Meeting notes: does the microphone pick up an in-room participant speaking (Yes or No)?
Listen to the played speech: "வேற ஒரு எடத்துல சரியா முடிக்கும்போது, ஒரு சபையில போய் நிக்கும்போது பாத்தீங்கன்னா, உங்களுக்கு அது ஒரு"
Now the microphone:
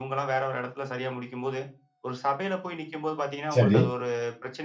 Yes